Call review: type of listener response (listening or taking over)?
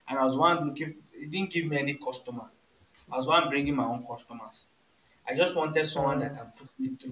listening